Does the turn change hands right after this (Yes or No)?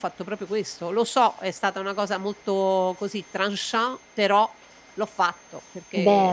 No